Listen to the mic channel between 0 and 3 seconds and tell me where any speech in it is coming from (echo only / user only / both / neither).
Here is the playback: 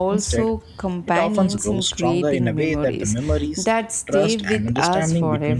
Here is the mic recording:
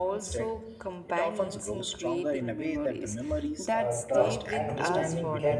echo only